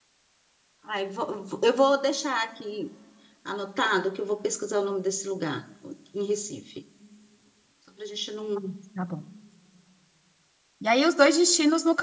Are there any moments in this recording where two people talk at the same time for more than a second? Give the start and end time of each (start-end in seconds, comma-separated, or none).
none